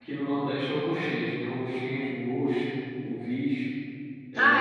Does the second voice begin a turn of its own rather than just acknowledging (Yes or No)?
Yes